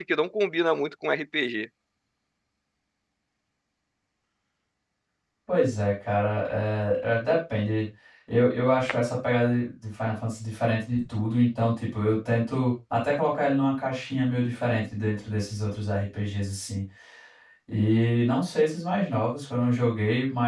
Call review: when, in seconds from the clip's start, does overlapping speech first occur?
none

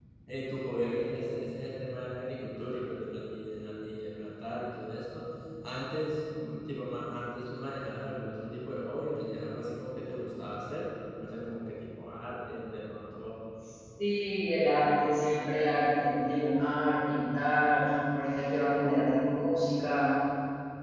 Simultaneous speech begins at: none

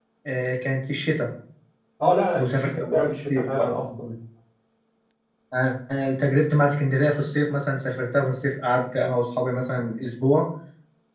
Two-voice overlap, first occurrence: 2.4 s

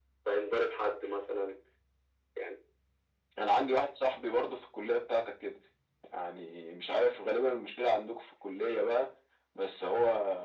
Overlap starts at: none

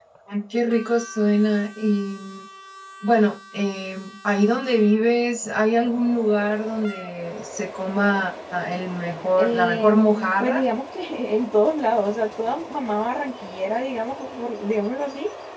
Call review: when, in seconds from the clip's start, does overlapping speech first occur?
9.4 s

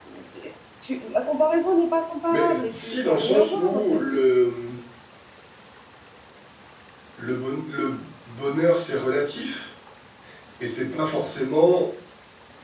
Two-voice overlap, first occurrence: 2.3 s

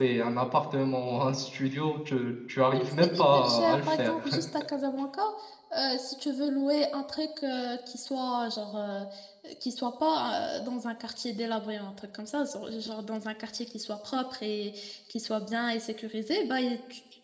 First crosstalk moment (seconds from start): 2.7 s

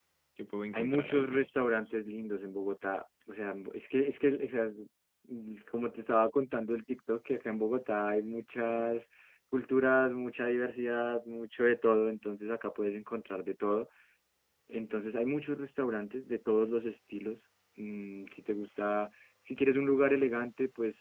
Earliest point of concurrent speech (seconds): 0.7 s

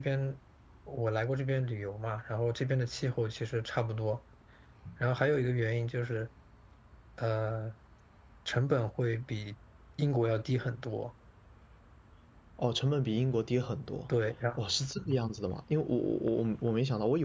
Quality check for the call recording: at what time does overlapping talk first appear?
none

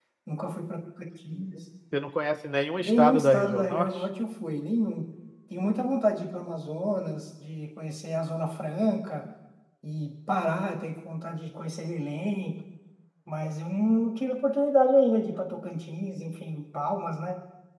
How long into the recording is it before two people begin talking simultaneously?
2.8 s

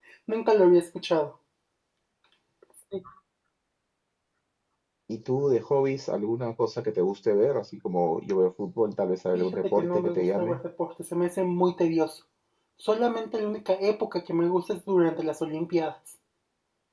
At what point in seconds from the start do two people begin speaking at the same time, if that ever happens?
9.3 s

